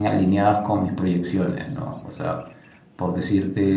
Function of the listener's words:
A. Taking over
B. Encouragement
B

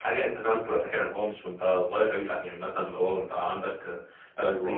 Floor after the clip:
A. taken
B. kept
B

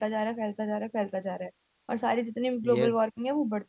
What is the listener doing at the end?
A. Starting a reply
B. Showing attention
B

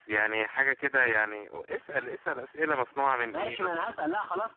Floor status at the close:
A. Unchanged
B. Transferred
B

